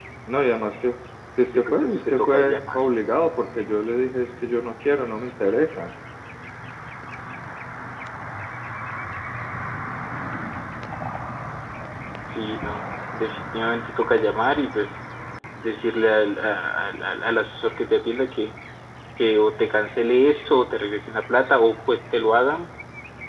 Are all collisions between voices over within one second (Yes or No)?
No